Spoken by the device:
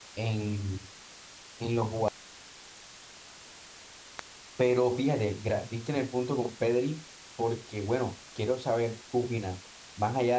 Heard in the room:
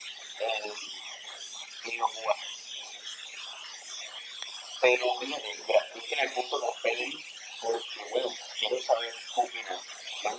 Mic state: echo only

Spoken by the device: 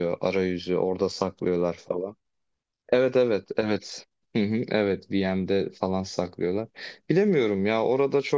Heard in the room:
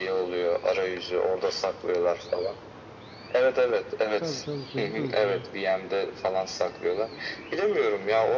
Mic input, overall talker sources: both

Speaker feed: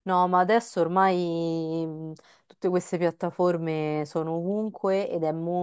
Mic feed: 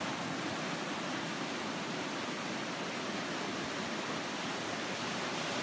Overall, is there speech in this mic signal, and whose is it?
neither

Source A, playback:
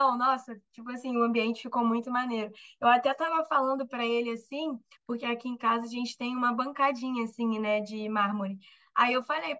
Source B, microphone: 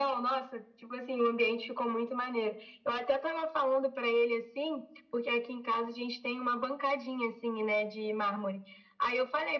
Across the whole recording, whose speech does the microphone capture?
echo only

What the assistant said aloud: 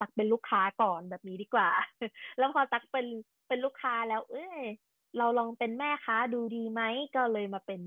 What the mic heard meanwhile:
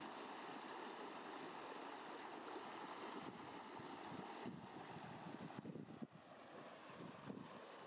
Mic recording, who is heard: neither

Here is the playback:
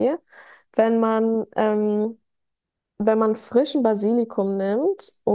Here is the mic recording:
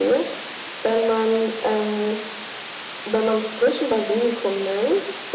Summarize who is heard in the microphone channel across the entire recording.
echo only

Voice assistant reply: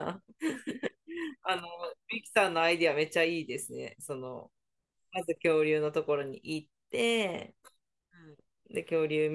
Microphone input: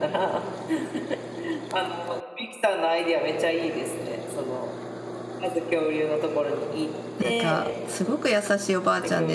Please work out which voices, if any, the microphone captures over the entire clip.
both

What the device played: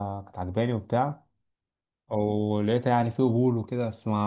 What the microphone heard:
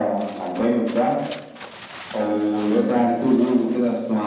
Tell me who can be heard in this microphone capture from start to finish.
echo only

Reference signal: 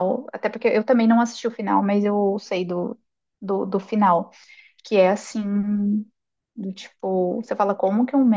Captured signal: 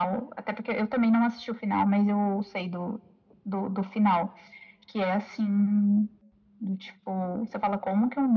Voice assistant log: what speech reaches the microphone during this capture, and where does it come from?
echo only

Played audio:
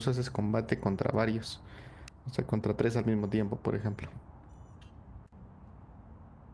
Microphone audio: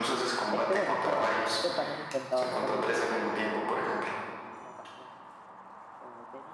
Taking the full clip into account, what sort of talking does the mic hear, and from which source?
both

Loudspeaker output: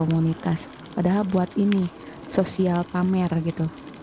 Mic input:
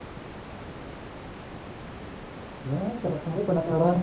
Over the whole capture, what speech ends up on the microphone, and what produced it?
user only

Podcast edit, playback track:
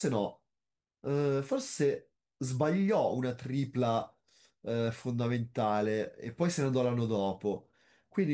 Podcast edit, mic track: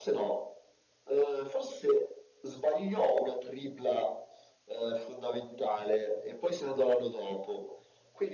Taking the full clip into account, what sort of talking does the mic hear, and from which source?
echo only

